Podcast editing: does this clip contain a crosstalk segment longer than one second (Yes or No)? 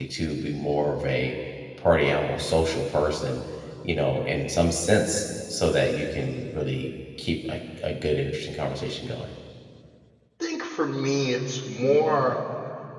No